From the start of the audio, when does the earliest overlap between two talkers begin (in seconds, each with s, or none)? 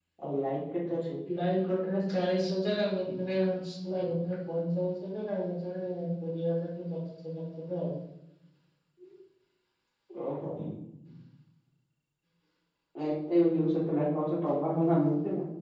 none